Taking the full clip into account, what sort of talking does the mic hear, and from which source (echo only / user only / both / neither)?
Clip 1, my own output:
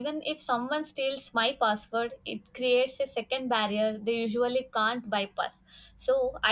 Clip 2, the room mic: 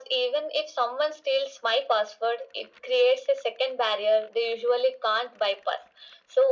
echo only